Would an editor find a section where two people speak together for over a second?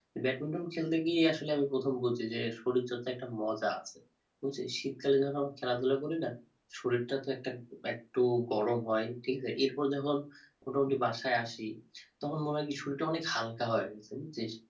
No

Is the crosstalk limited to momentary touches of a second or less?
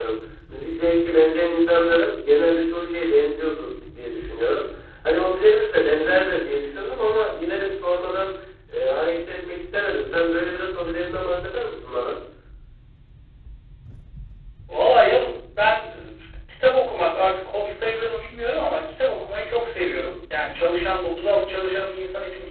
Yes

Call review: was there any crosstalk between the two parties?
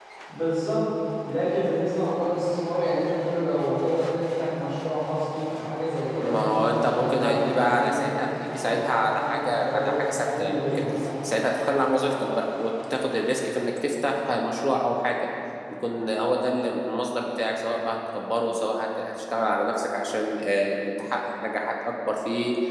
Yes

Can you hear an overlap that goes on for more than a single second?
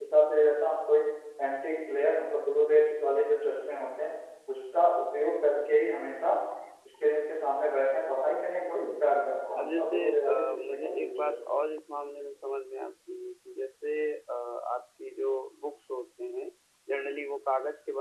Yes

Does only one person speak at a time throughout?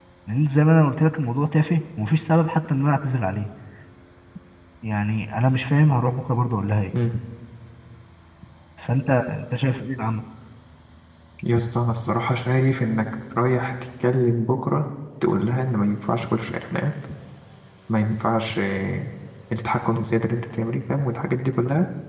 Yes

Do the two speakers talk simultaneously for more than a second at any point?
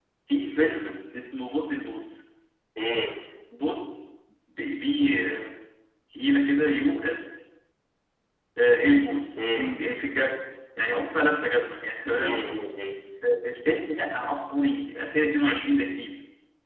No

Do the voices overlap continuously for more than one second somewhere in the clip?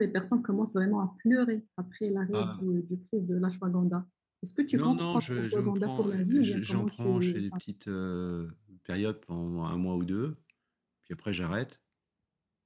Yes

